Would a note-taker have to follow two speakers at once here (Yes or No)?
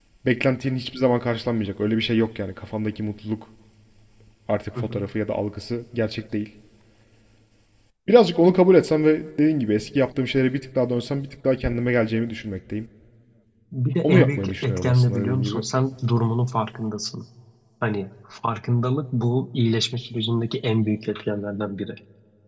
Yes